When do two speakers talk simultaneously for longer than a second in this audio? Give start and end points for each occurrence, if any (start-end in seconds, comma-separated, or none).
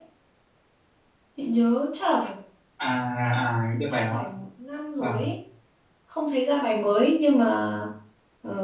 none